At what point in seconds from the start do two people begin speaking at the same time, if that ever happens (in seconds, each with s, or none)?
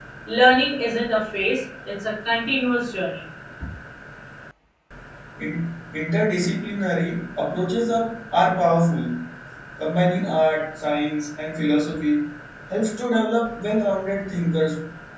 none